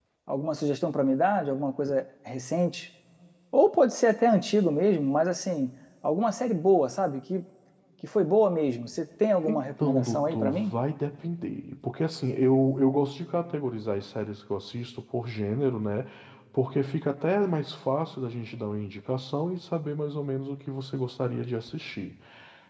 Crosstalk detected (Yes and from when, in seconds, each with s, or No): Yes, from 9.4 s